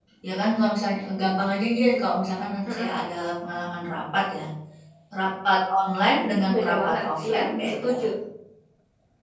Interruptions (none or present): present